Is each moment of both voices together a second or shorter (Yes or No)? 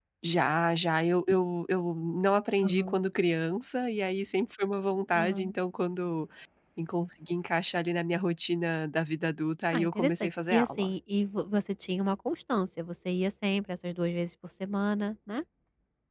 No